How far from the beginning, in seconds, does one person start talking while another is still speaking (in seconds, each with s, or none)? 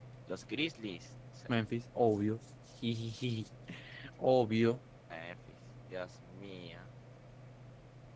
none